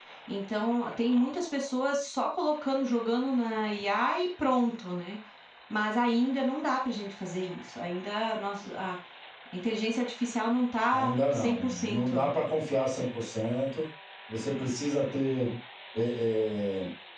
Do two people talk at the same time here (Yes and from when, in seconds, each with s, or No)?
Yes, from 10.9 s